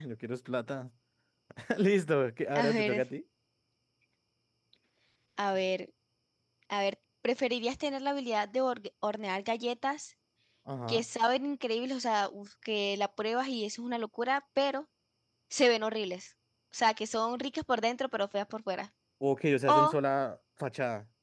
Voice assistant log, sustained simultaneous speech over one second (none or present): none